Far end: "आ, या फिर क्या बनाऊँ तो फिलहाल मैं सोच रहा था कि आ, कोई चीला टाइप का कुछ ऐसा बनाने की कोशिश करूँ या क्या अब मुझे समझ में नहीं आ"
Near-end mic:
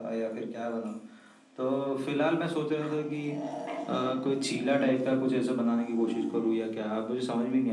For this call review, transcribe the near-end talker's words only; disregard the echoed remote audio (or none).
none